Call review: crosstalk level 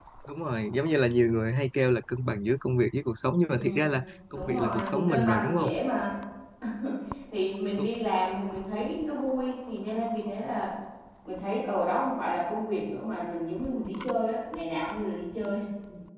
present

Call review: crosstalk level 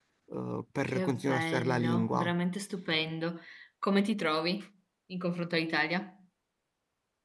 present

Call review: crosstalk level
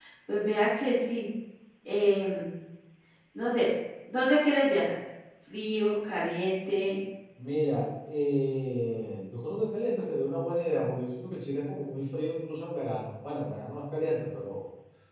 none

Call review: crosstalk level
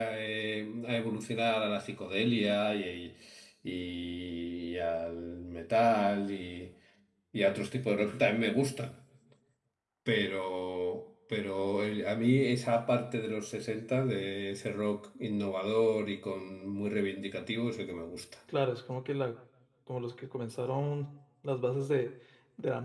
none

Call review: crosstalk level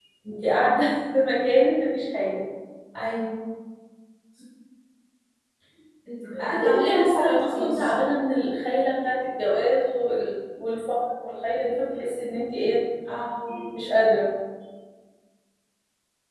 present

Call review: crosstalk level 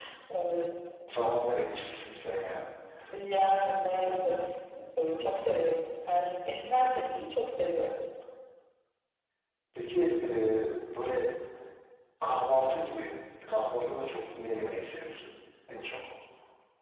none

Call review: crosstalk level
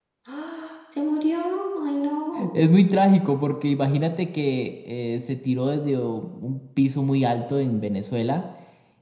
none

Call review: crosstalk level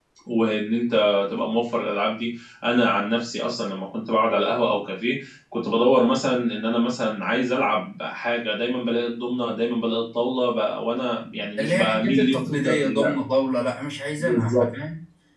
present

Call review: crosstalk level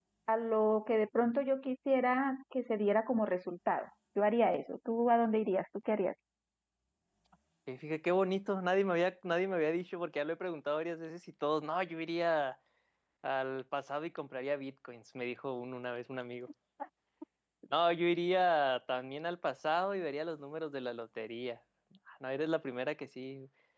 none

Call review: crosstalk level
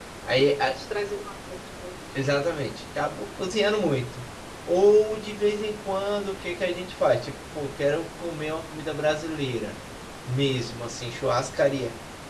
none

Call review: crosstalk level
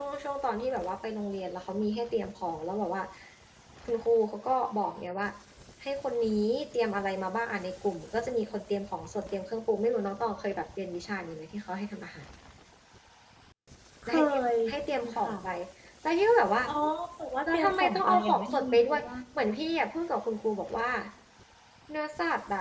present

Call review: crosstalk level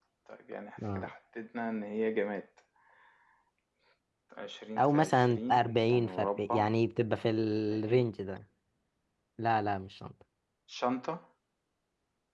present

